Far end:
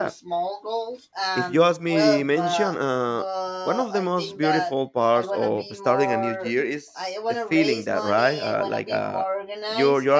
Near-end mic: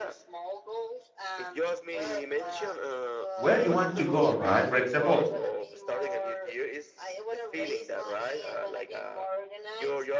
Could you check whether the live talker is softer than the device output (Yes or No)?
No